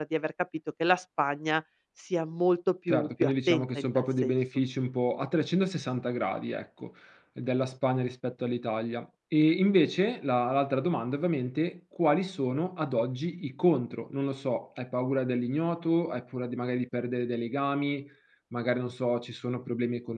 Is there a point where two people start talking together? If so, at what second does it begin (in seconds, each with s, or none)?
2.9 s